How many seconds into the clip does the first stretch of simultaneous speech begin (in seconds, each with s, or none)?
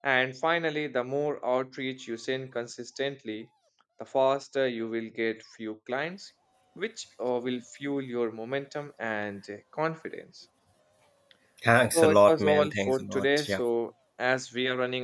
11.9 s